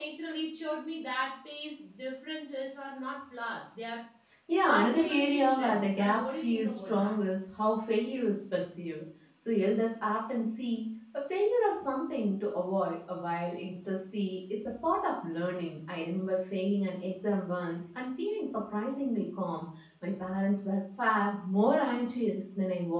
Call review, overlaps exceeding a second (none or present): present